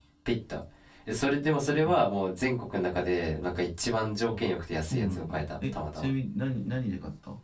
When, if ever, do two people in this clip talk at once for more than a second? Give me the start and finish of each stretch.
4.8-6.1

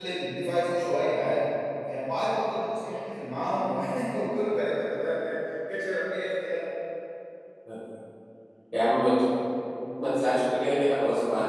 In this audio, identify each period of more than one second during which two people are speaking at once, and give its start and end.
none

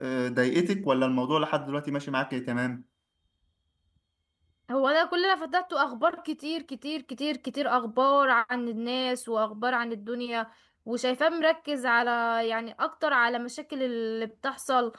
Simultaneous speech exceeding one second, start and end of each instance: none

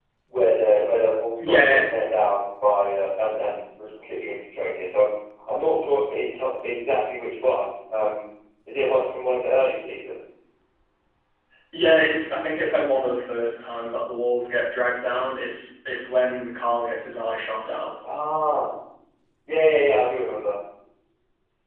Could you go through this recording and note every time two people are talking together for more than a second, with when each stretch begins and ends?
none

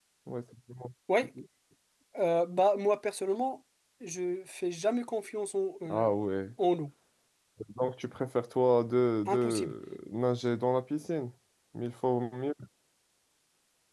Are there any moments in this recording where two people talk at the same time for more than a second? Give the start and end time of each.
none

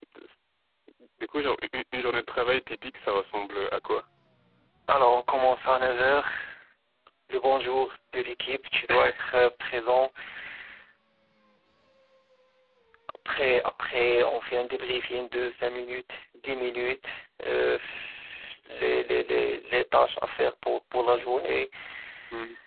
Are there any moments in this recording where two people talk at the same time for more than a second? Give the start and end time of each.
none

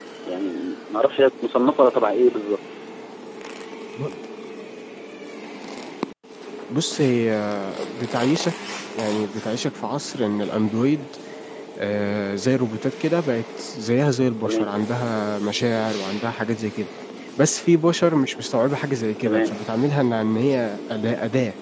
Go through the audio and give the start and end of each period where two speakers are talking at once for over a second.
none

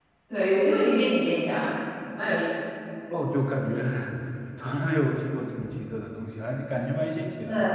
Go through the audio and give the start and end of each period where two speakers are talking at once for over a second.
none

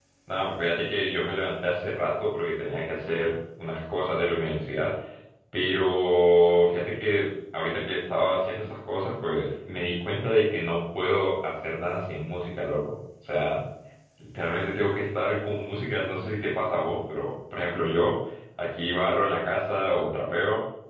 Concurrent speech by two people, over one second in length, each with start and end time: none

